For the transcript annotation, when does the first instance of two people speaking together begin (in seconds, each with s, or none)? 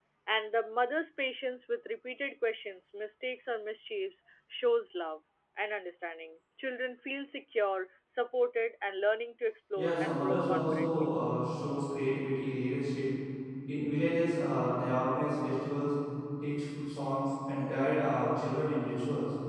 9.8 s